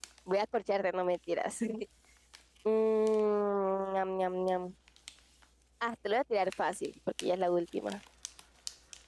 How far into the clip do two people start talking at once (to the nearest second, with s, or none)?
none